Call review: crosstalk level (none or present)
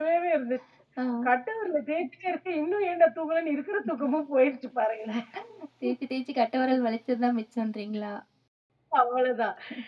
none